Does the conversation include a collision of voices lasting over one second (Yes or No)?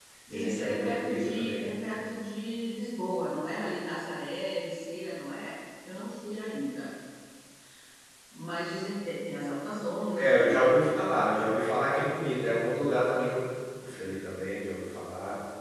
Yes